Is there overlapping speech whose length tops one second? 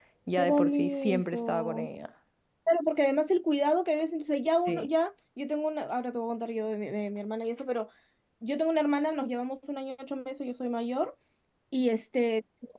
Yes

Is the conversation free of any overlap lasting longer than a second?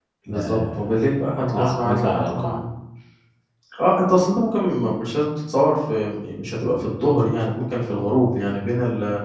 No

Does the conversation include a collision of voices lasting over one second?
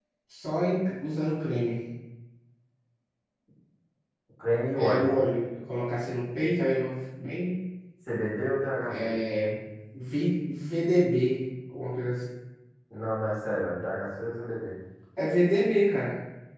No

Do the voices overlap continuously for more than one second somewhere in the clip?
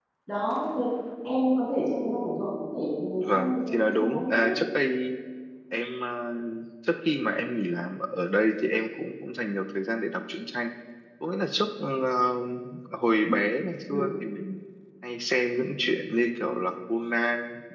Yes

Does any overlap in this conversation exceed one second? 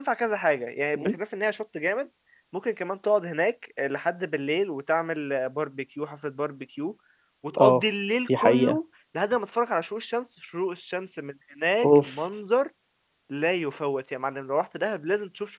No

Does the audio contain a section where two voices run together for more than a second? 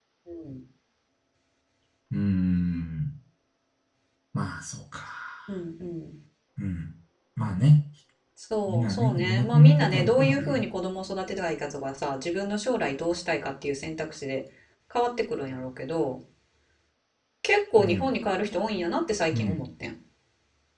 Yes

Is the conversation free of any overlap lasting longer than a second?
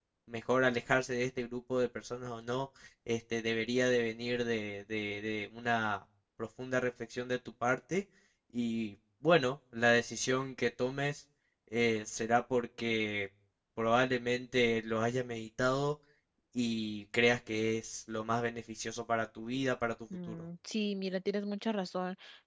Yes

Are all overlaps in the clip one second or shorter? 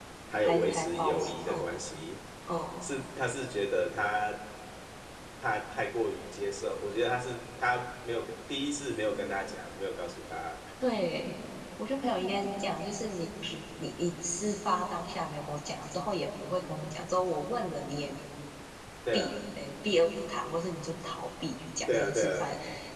No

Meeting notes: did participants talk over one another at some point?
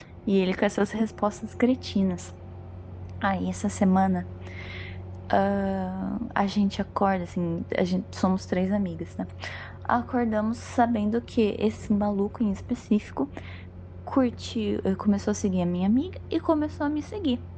No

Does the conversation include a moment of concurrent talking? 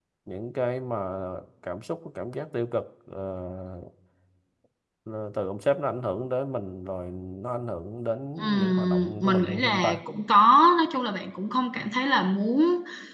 Yes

